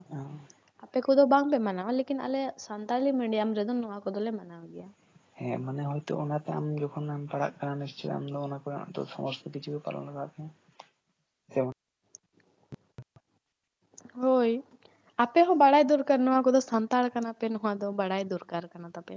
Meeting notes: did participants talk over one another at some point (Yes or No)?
No